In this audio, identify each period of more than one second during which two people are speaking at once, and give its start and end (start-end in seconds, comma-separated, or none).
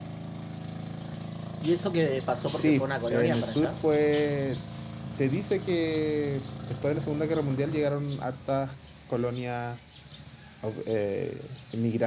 2.6-3.8